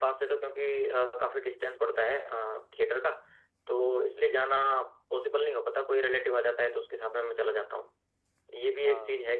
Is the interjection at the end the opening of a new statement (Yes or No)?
No